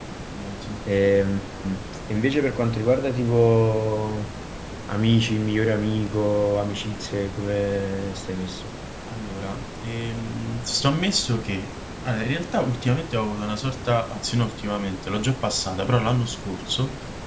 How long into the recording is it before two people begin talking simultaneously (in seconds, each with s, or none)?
none